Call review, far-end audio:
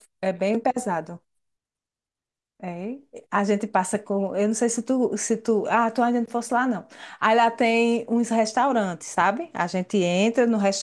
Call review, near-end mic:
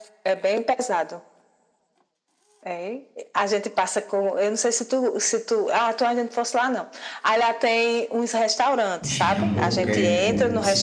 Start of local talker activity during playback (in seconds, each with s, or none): 9.0 s